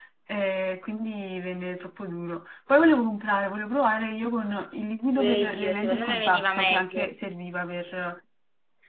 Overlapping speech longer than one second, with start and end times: 5.2-7.1

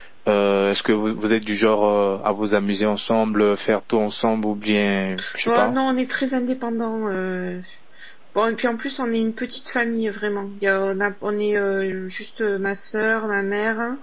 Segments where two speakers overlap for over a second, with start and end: none

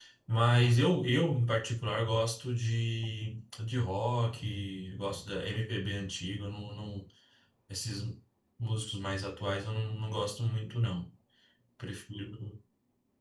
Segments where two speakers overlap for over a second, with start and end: none

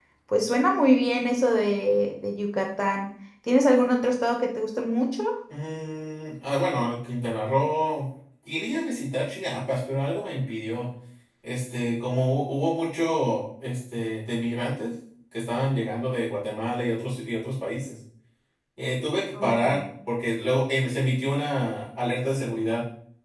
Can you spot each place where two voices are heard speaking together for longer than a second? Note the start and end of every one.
none

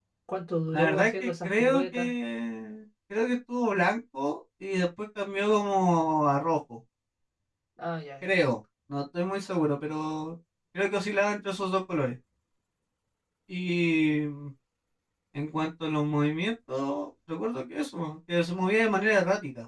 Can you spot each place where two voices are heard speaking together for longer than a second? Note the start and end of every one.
0.7-2.1

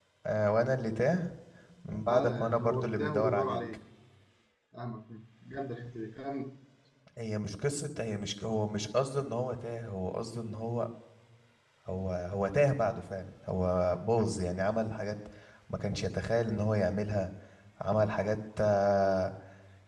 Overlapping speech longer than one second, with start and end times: 2.1-3.6

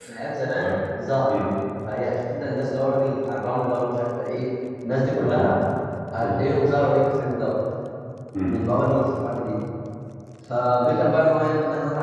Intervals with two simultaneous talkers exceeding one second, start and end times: none

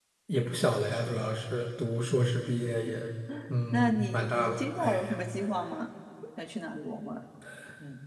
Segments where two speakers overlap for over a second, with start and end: 3.7-5.2

